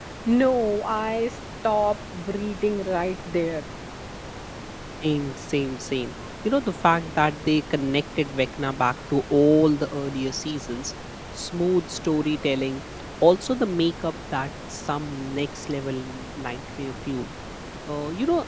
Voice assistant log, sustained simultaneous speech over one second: none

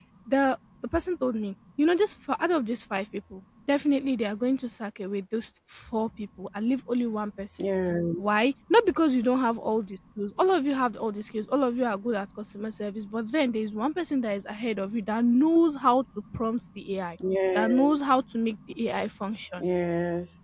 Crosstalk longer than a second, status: none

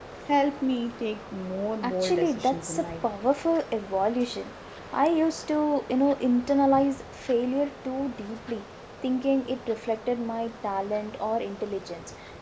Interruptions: present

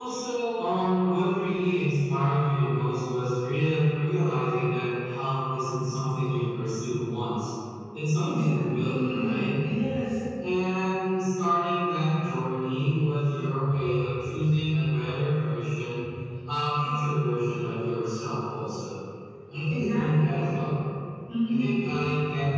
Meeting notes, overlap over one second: present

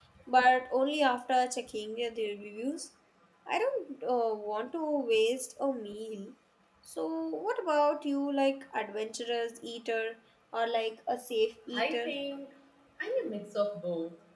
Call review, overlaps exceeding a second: none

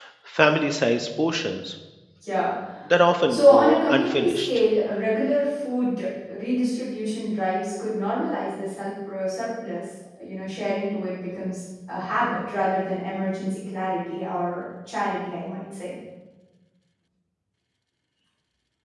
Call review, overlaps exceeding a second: present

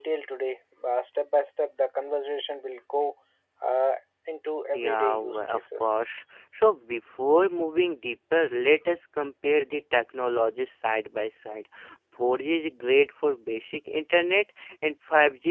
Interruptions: present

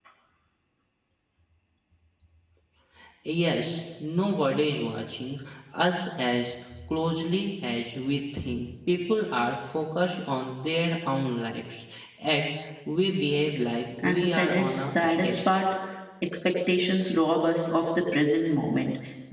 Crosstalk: present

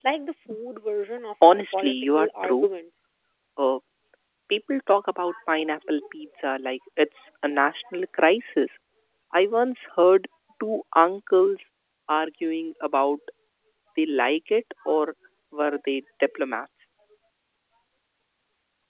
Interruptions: present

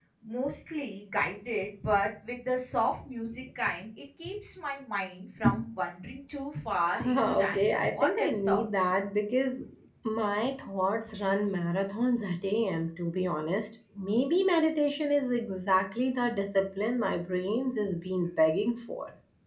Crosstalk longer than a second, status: present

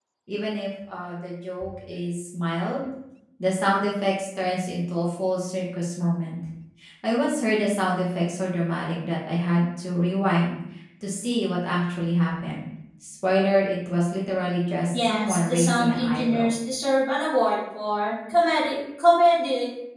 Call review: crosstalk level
present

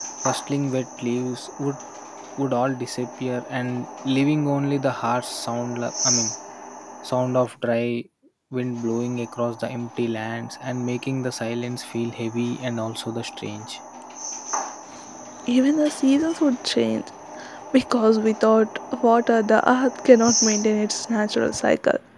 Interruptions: none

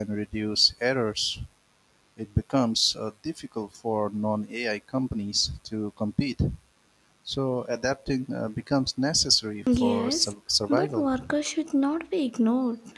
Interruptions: present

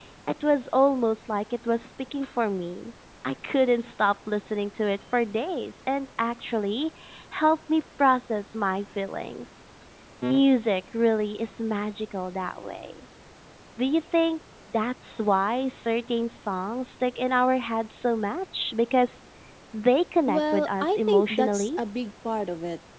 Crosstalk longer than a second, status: present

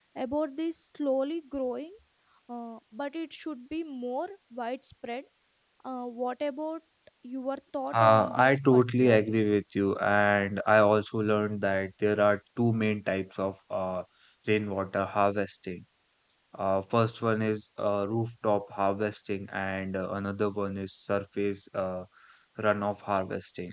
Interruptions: present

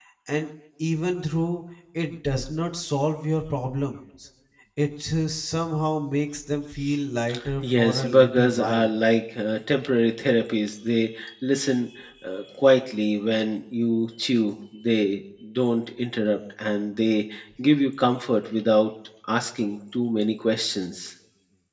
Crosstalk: present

